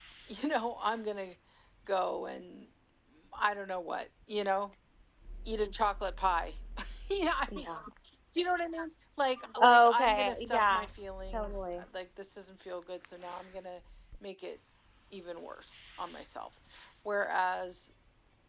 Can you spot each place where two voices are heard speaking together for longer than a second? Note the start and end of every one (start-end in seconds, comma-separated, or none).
9.6-10.9